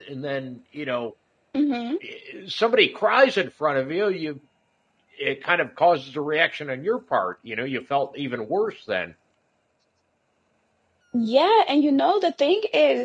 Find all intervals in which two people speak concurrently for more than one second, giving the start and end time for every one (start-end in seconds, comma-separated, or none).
none